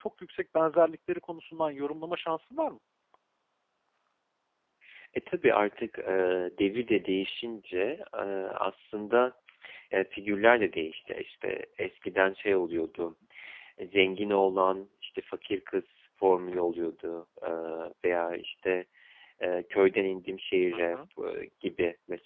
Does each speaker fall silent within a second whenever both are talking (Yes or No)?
Yes